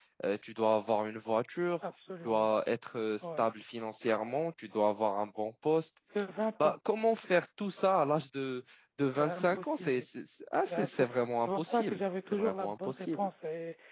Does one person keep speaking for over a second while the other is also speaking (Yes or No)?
Yes